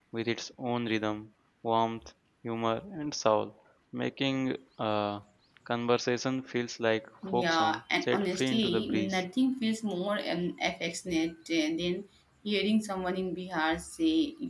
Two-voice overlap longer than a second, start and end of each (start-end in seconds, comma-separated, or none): 7.3-9.2